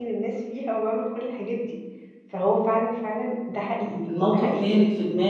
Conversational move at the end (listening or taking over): taking over